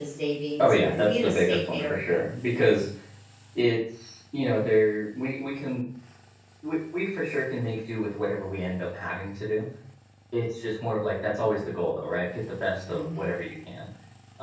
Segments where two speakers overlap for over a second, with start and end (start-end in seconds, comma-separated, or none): 0.6-2.2